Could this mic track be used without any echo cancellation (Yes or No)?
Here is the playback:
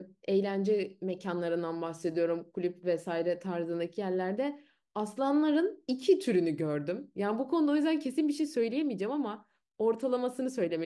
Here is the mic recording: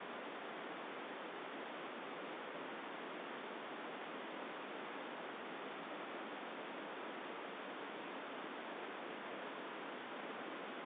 Yes